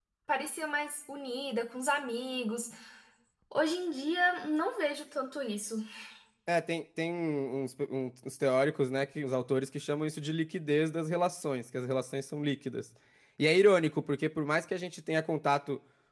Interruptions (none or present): none